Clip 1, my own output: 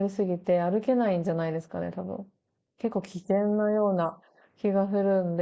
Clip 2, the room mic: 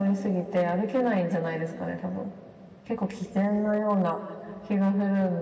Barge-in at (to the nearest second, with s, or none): none